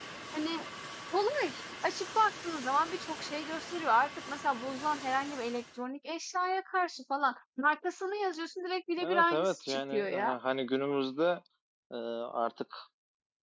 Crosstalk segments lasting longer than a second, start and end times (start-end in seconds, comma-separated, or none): 9.0-10.4